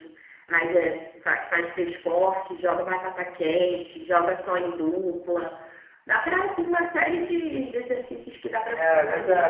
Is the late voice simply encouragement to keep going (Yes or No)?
No